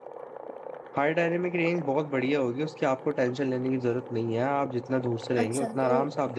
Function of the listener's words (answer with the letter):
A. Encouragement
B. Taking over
B